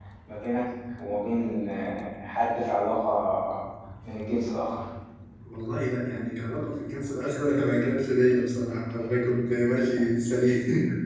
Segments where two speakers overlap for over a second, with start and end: none

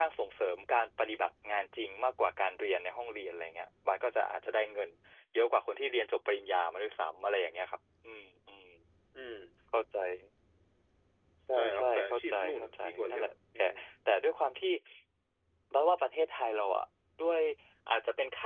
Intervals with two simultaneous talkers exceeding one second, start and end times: 11.5-13.6

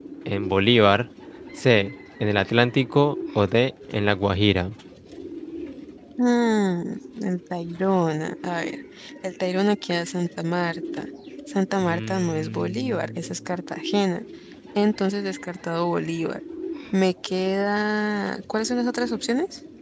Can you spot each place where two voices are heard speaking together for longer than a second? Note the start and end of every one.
11.8-13.1

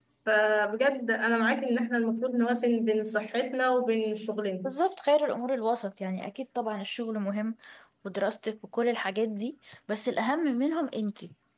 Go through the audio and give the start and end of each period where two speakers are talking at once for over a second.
none

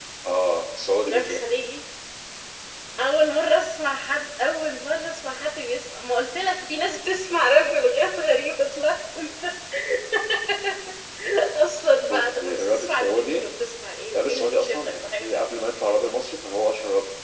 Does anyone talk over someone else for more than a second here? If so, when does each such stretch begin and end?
12.1-13.4, 14.2-15.5

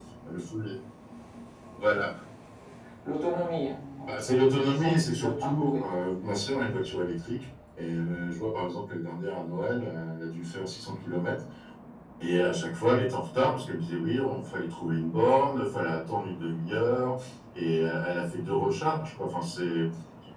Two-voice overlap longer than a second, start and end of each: 4.0-6.0

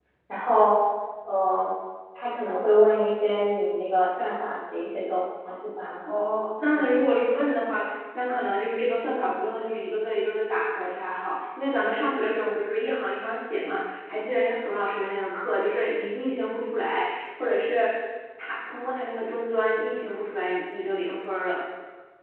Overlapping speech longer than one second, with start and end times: none

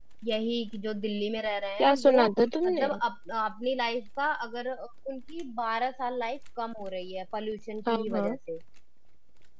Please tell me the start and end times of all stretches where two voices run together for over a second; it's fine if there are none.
none

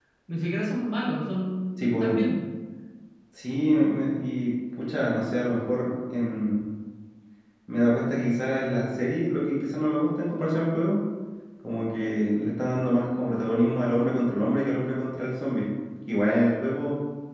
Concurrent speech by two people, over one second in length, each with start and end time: none

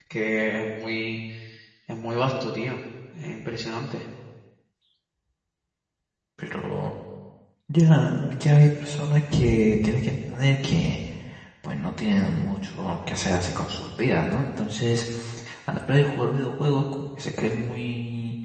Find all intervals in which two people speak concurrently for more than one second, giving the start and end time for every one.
none

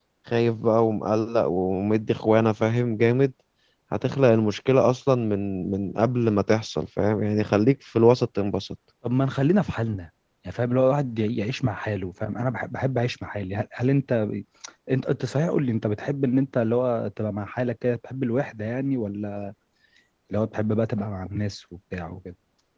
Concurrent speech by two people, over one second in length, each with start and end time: none

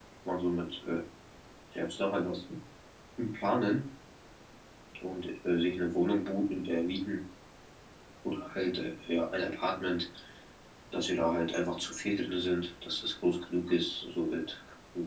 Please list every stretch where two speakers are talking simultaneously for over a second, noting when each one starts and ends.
none

